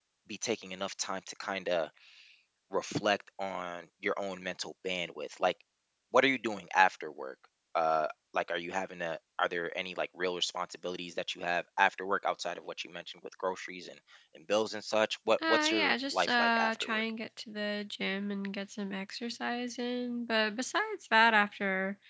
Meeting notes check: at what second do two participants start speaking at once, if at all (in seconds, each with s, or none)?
15.4 s